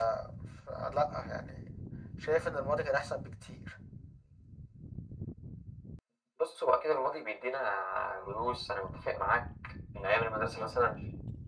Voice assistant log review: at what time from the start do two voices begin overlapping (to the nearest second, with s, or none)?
none